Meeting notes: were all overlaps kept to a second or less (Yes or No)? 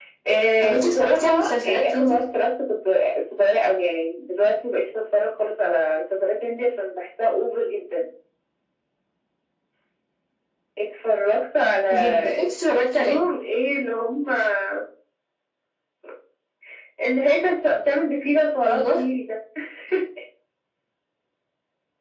No